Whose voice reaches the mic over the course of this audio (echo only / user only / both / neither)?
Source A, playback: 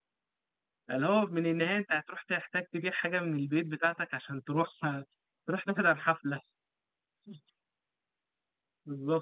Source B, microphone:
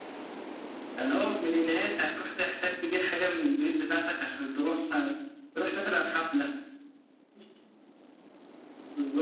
echo only